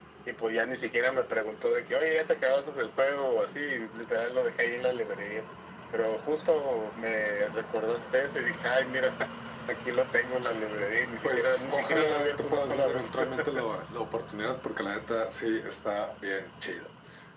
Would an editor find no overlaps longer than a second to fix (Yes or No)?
No